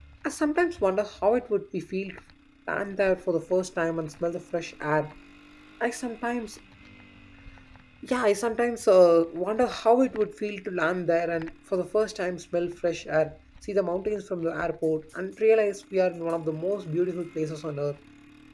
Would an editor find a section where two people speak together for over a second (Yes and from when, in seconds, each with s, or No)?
No